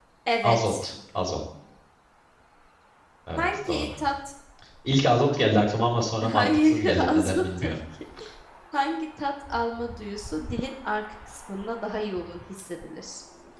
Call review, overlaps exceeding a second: present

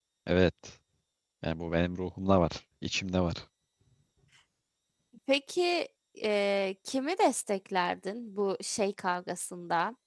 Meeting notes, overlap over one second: none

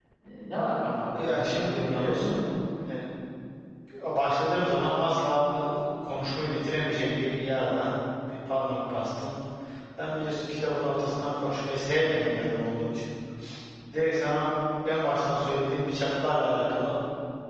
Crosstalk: present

